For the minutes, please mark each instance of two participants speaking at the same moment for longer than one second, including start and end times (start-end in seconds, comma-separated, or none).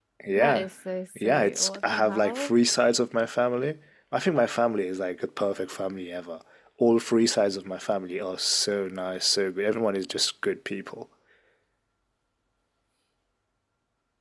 1.1-2.5